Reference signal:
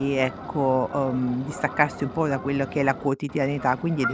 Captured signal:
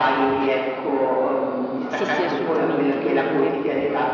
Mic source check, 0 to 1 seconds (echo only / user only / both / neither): echo only